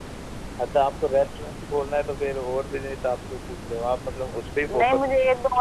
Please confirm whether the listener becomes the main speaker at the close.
Yes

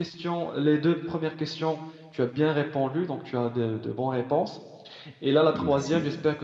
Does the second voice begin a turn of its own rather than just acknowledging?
No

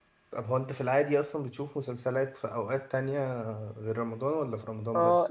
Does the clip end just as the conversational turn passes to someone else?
Yes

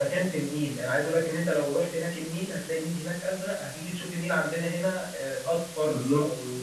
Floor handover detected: No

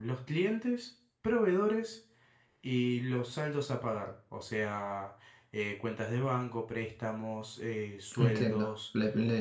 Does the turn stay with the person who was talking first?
No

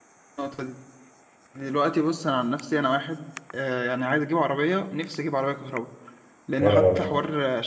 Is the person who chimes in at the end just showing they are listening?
Yes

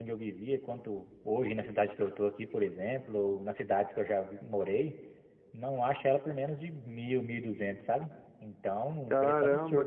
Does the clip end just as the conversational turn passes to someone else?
Yes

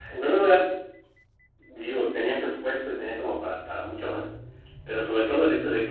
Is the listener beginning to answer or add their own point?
No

